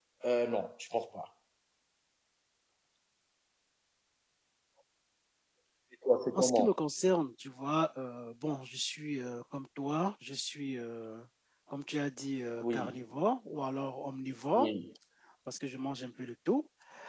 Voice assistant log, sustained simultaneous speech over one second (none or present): none